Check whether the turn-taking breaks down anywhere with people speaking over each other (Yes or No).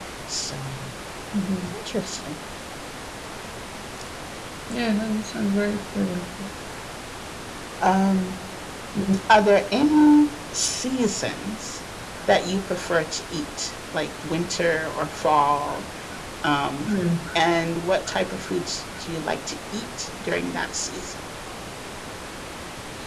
No